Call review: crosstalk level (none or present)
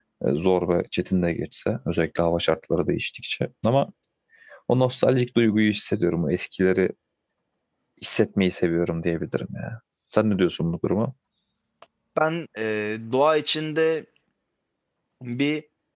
none